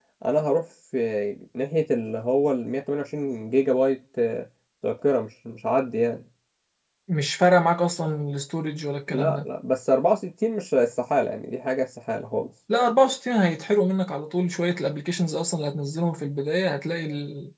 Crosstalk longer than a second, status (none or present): none